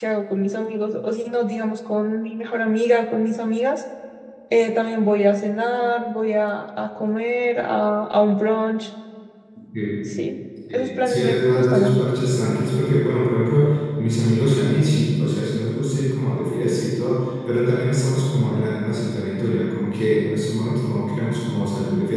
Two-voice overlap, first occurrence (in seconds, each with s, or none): 10.7 s